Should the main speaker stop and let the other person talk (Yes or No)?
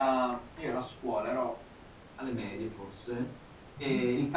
No